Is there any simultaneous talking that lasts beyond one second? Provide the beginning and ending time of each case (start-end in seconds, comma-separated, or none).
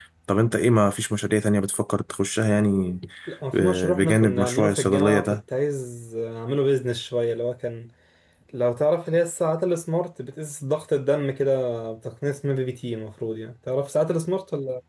3.5-5.4